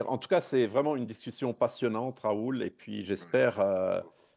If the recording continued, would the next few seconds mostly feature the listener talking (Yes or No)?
No